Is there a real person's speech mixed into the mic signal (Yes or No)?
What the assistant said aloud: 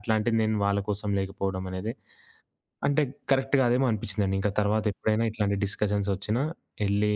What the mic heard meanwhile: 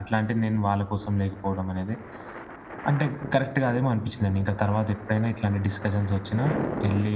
No